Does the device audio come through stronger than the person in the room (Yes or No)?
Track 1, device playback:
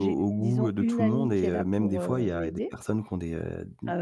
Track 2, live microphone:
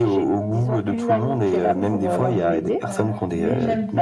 Yes